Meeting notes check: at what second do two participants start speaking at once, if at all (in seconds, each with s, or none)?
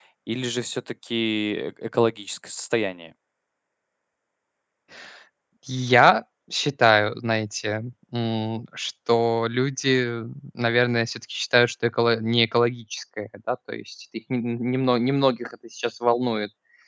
none